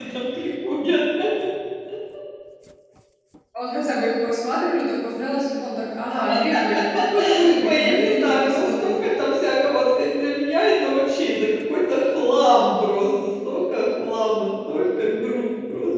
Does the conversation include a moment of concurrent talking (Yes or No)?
Yes